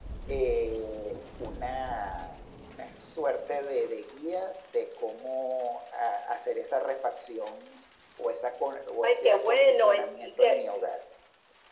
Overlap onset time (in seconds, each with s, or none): 9.0 s